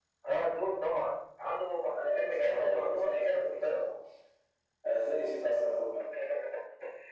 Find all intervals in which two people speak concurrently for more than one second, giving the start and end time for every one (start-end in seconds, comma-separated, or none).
2.0-3.9